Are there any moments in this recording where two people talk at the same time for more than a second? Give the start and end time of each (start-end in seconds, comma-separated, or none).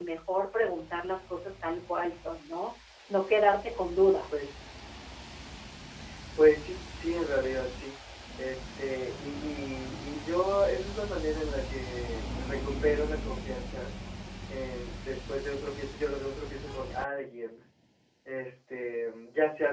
none